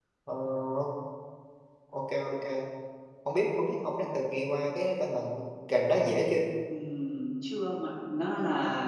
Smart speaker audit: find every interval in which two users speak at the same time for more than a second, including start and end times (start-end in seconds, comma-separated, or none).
none